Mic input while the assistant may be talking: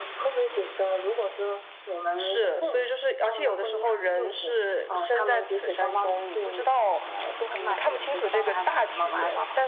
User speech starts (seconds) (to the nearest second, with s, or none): none